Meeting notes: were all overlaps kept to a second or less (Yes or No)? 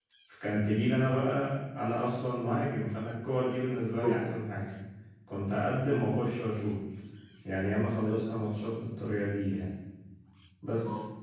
Yes